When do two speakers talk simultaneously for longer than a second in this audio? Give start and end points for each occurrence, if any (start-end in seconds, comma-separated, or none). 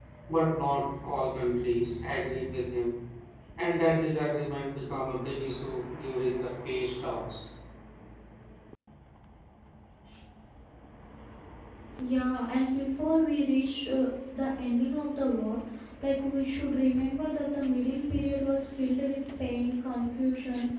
none